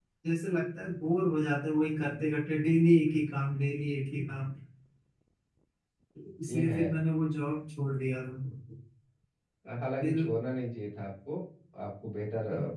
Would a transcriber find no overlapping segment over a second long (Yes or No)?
Yes